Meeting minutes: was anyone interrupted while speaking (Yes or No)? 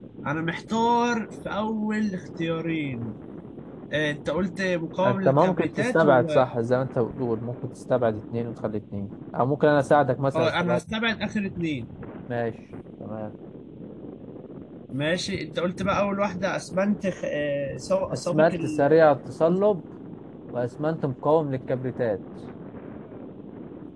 Yes